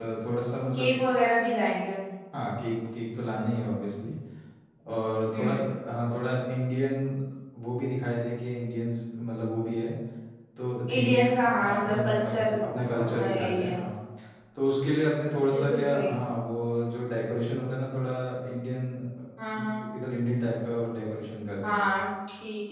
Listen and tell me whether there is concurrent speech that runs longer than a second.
Yes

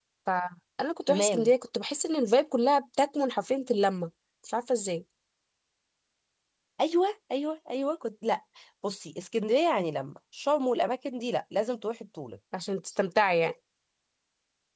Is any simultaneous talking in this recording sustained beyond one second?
No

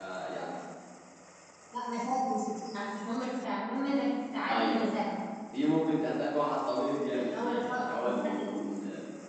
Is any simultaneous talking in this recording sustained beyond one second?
Yes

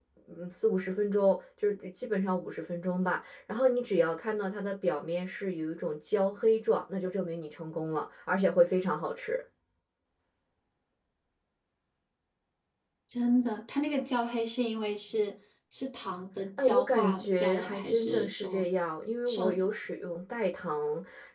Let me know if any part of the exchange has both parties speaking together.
Yes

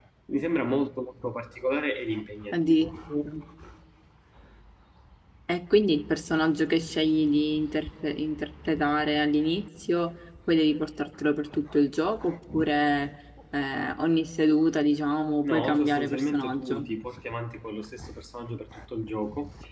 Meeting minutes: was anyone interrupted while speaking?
Yes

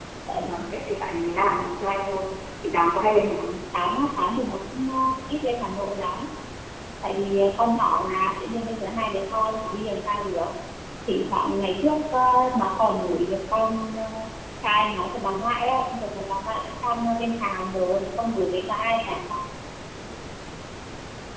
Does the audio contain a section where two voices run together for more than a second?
No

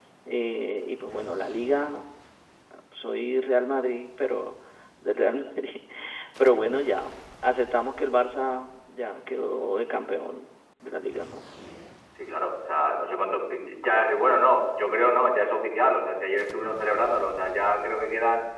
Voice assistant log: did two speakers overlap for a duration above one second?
No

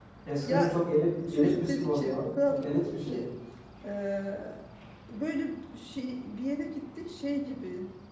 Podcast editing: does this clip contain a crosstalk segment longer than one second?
Yes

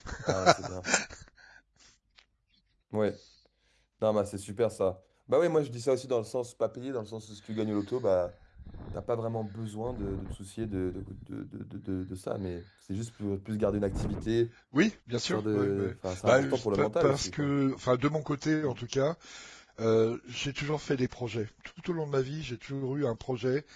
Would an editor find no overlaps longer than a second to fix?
No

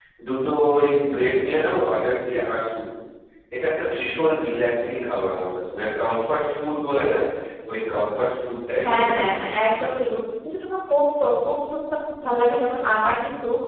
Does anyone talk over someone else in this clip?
Yes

